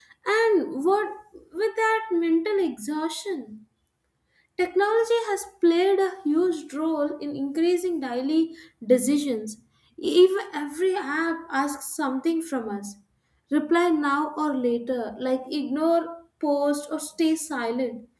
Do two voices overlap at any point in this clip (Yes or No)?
No